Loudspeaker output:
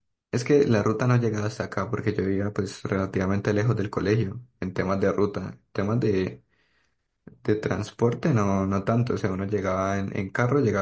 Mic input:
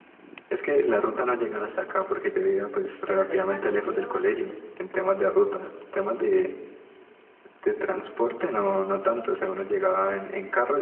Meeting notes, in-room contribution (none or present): present